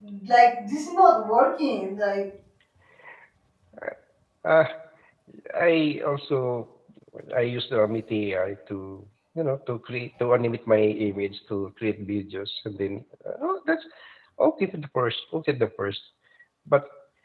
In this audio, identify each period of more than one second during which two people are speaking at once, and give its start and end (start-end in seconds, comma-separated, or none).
none